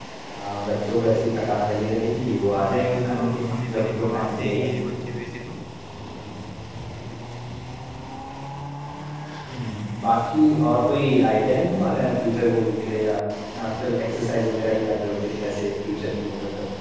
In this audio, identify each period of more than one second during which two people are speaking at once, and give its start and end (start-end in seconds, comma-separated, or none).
2.6-4.7